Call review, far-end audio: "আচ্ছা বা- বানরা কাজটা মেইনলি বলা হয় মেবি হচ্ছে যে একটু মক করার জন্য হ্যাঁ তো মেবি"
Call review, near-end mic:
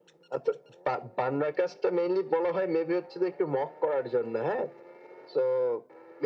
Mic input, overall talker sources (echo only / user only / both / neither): echo only